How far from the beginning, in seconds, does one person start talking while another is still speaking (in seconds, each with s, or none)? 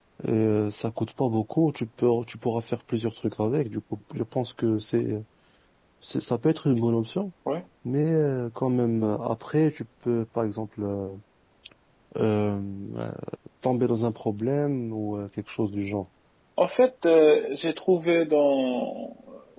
none